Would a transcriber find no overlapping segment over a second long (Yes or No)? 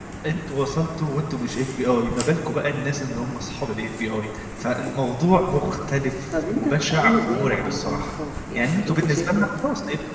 No